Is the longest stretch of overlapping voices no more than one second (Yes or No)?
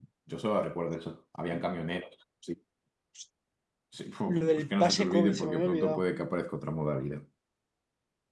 No